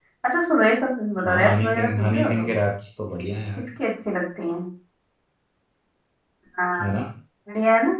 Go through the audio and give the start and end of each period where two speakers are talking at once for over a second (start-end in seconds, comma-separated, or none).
1.2-2.5